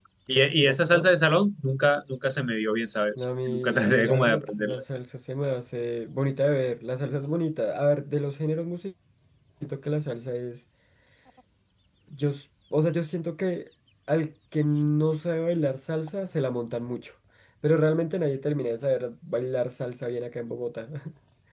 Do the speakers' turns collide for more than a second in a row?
Yes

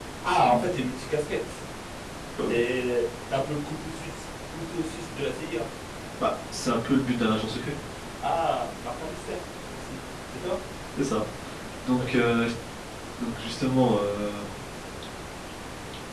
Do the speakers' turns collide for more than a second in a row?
No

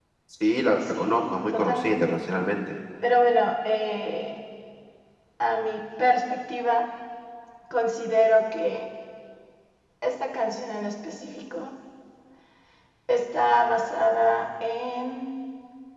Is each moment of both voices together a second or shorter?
No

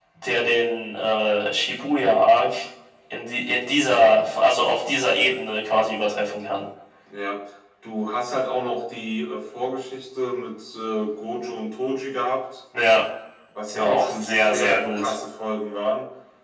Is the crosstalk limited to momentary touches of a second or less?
No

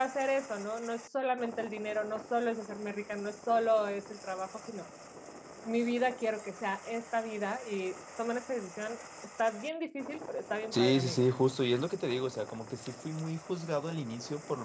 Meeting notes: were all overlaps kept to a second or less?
Yes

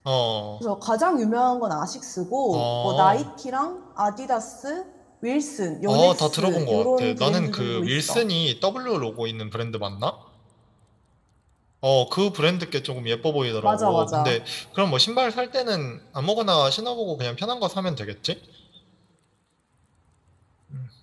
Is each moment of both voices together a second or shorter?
No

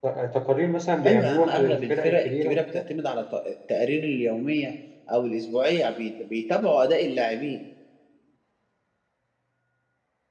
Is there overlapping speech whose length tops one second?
Yes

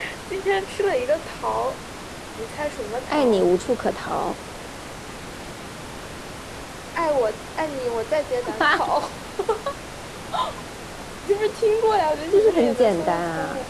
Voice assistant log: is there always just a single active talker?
No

